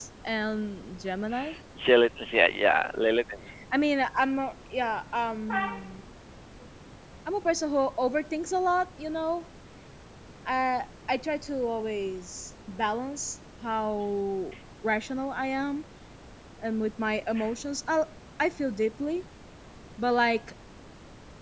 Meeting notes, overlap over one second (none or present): none